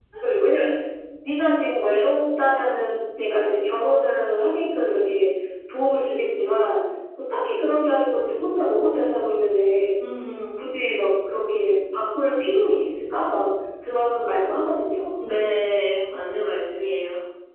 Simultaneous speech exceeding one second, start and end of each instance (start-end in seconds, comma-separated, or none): none